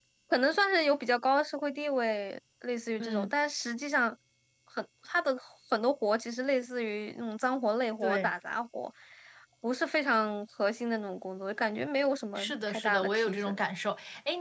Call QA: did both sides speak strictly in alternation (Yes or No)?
No